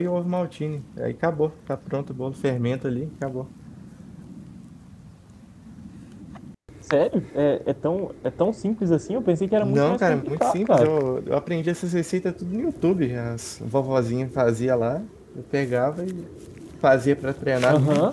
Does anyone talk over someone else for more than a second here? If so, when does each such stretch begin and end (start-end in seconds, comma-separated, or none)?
9.6-10.9